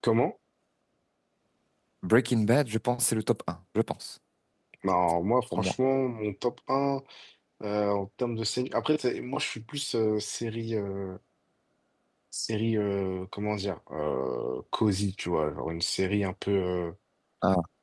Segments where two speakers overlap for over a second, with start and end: none

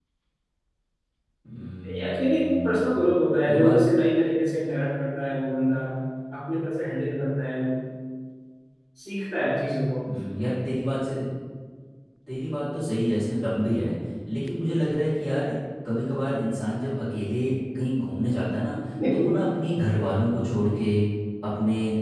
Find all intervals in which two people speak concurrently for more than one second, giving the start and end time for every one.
1.9-3.1

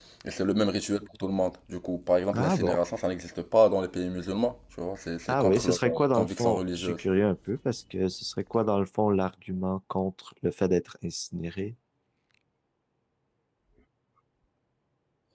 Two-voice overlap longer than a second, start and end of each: 5.3-7.0

